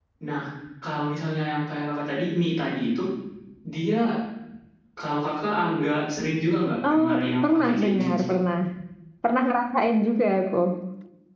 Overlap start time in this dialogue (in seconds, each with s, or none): 6.8 s